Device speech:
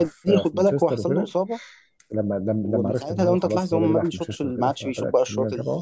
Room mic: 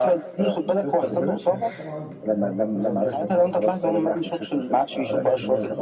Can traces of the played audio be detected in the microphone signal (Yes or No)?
Yes